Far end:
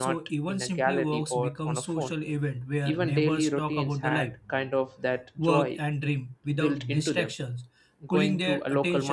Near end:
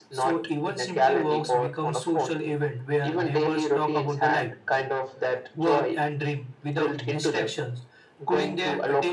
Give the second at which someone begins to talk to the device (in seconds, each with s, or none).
none